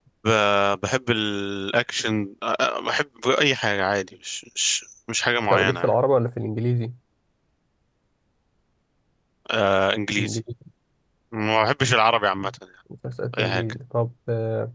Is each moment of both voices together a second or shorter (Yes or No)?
Yes